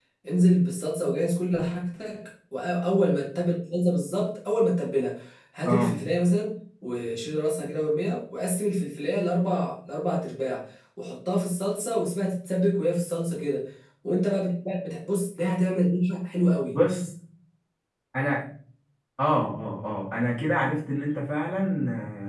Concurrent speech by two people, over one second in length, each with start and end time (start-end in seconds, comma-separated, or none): none